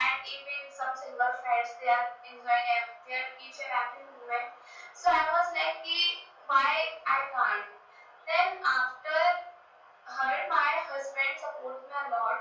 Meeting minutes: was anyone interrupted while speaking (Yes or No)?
No